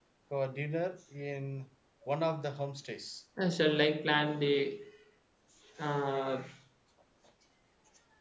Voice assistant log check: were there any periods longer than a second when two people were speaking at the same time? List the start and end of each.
none

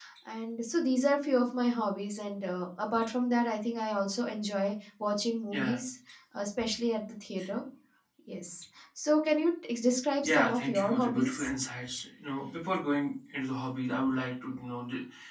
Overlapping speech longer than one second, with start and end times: 10.2-11.5

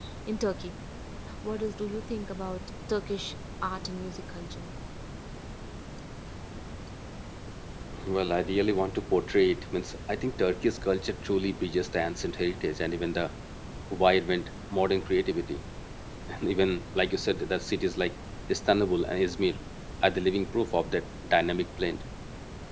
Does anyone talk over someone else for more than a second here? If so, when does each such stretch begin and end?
none

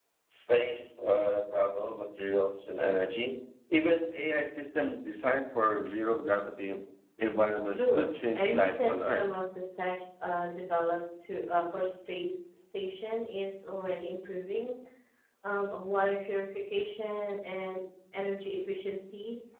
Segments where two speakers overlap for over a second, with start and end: 7.7-9.3

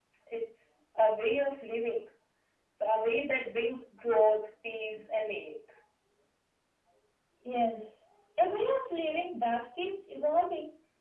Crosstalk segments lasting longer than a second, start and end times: none

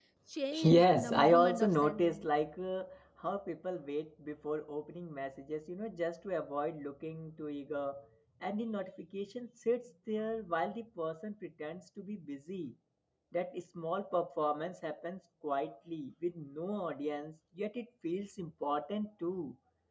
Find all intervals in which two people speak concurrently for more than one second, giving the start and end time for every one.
0.6-2.3

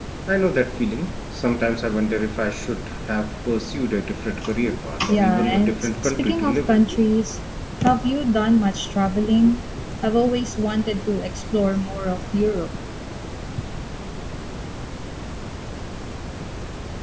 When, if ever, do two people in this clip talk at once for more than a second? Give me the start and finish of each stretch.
5.1-6.8

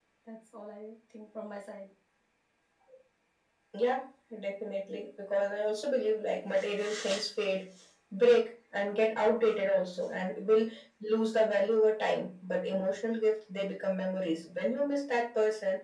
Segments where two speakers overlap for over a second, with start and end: none

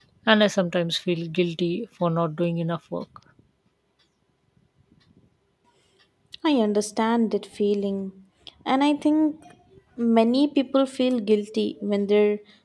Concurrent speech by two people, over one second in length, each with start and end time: none

